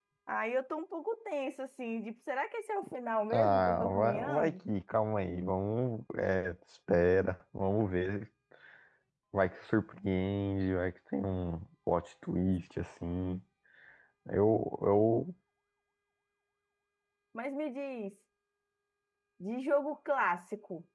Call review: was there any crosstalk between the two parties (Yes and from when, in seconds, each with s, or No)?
Yes, from 3.3 s